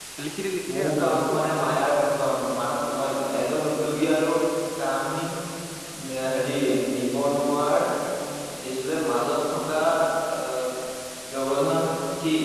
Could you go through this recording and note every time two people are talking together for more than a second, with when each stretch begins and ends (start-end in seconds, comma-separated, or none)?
0.8-2.0